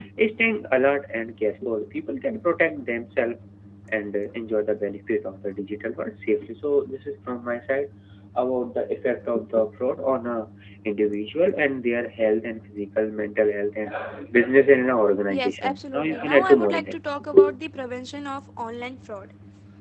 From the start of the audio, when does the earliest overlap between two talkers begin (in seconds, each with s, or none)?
15.3 s